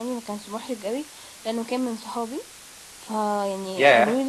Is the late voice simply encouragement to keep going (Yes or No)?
No